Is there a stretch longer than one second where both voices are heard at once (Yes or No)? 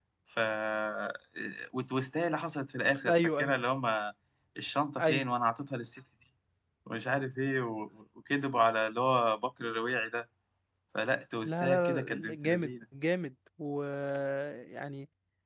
Yes